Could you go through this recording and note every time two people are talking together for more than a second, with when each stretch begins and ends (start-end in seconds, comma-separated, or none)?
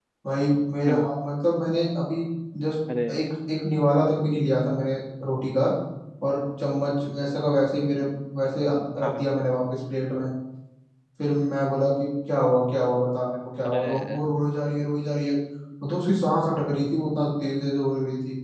none